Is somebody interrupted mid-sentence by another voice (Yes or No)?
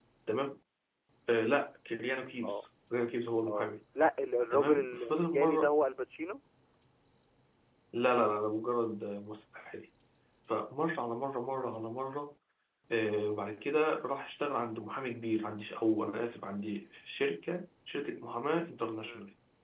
Yes